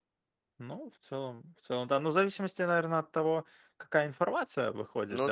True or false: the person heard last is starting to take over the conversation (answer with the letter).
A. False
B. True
A